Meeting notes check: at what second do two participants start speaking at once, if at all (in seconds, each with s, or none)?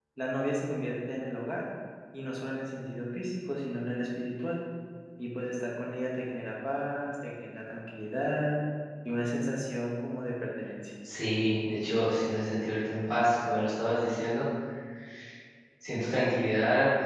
none